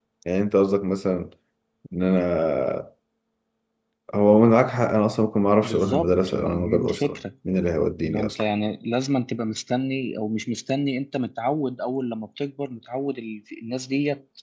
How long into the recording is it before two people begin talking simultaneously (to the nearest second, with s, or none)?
6 s